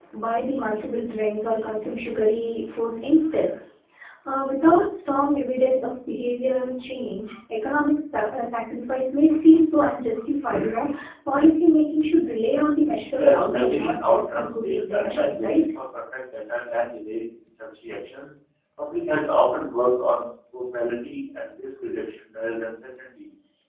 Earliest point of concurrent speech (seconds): 13.2 s

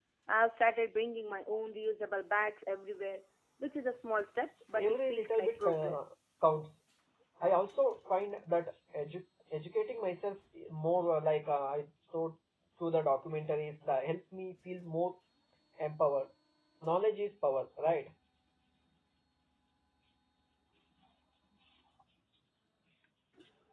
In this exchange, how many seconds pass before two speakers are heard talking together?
4.7 s

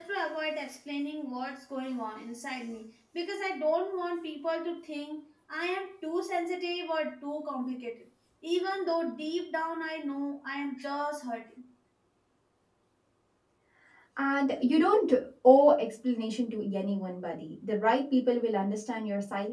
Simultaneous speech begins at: none

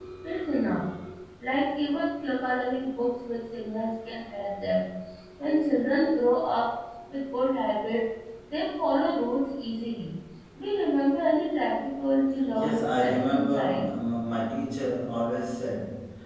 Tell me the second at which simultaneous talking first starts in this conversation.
12.5 s

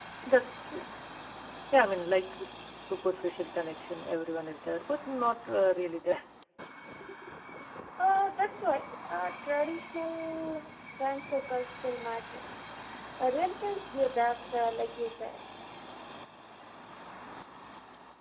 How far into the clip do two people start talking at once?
none

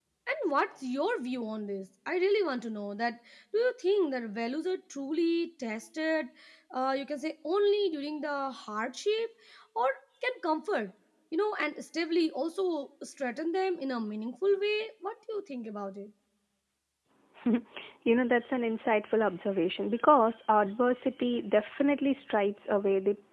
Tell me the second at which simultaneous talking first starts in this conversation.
none

